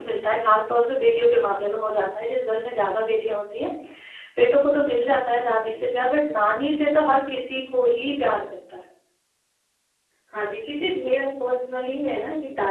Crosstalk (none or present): none